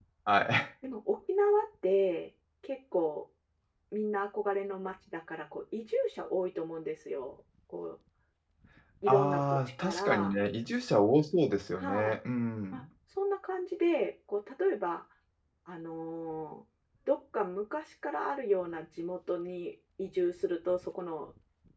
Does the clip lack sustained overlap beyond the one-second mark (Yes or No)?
No